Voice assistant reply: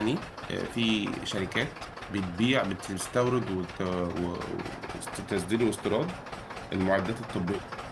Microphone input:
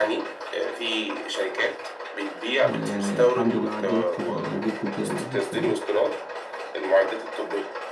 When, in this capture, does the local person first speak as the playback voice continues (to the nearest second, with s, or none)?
3 s